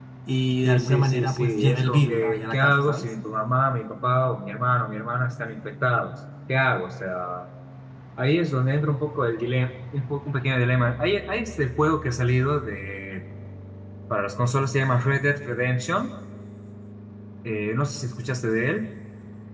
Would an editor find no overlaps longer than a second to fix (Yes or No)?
No